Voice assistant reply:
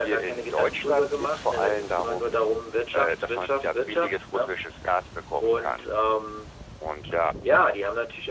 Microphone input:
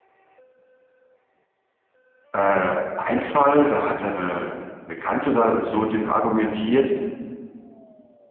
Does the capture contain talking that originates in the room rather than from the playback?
Yes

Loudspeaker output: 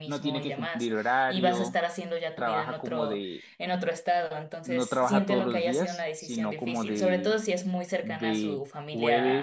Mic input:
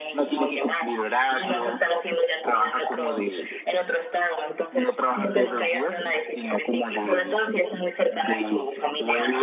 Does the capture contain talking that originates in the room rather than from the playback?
No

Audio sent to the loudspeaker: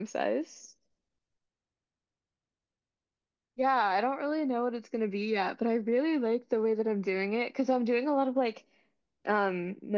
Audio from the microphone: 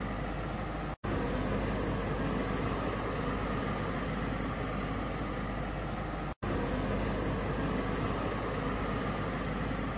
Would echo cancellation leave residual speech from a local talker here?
No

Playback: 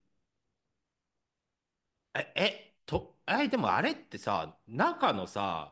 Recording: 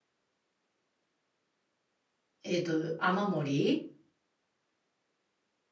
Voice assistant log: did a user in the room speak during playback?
Yes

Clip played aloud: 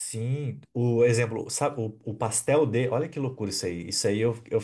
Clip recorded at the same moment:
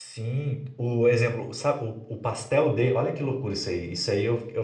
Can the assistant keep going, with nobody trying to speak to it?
Yes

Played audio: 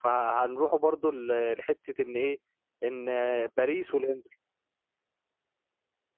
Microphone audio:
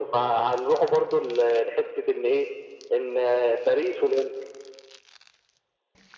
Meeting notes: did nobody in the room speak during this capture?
Yes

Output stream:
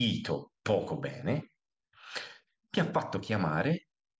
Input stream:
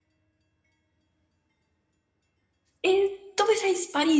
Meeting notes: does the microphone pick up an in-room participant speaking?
Yes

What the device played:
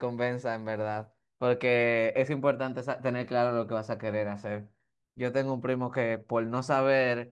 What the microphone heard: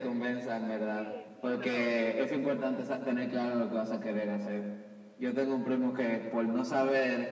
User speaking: Yes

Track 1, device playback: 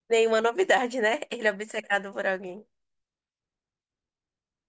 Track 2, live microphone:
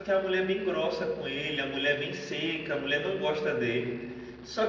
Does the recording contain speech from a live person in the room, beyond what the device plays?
Yes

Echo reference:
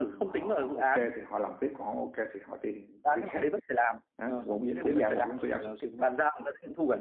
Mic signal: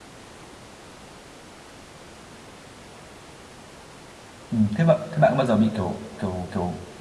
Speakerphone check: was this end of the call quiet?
No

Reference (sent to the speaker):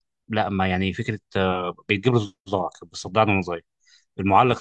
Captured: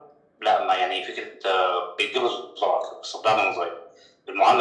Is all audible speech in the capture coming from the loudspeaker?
Yes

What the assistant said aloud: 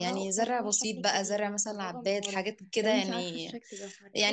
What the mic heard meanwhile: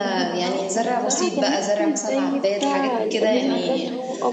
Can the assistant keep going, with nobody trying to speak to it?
No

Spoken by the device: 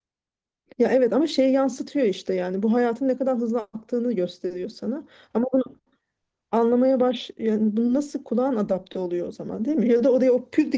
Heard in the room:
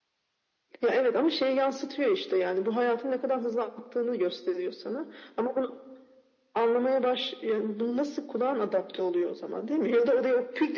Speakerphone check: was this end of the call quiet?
Yes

